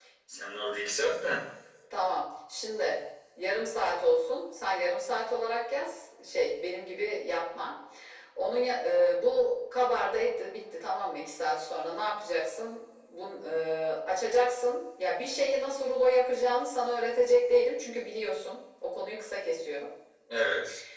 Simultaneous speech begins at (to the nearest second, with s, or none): none